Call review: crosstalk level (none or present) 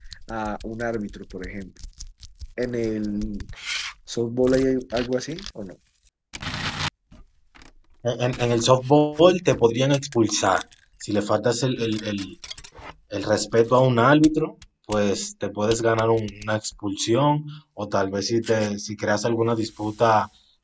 none